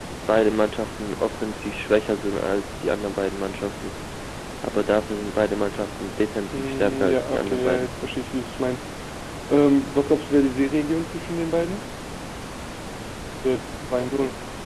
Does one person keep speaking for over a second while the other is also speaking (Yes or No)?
Yes